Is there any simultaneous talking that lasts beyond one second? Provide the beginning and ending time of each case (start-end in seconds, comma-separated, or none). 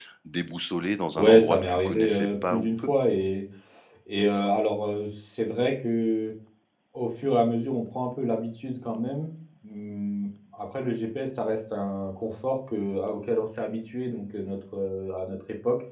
1.2-2.9